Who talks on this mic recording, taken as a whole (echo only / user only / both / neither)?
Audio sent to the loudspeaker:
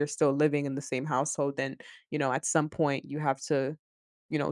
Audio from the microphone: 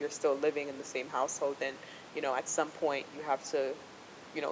echo only